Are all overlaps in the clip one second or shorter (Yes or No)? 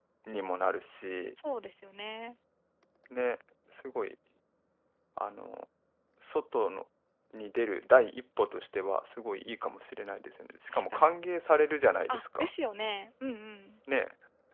Yes